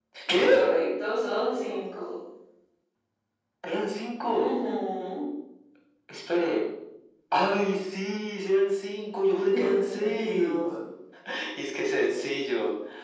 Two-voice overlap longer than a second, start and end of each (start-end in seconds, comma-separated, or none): 9.5-10.7